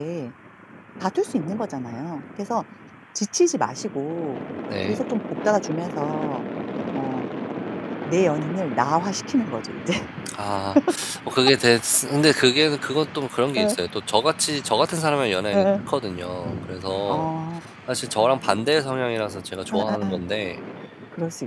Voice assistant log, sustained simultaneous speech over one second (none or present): none